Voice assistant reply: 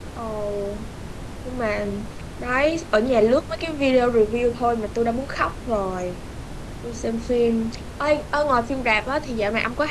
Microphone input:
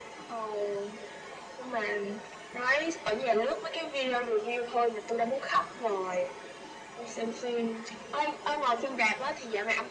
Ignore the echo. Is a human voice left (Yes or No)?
No